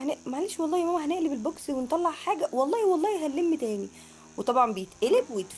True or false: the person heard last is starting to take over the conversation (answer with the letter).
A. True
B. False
B